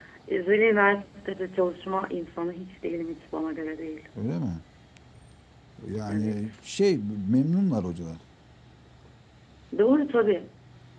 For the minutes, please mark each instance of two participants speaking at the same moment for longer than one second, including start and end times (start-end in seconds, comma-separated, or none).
none